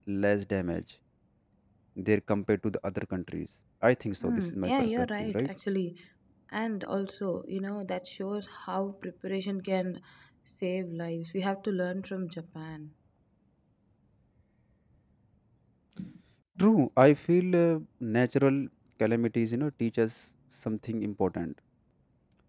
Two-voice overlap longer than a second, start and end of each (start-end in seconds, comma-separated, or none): 4.2-5.5